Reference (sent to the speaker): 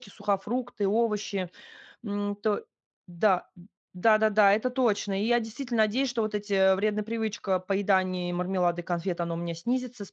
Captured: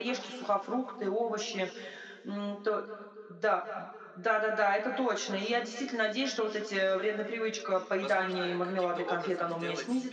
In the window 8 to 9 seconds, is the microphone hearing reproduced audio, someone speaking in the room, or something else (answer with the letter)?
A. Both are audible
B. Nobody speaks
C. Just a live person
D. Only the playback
A